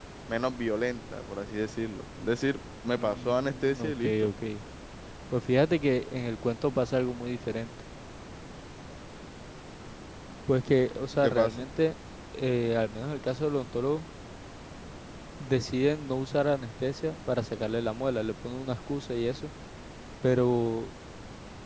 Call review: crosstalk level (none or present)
present